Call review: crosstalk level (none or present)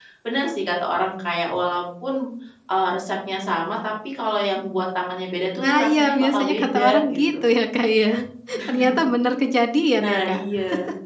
present